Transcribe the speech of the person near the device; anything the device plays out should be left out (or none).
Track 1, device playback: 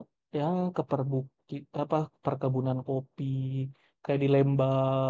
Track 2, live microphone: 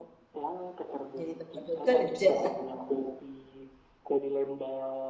Jadi tempat buat kerja.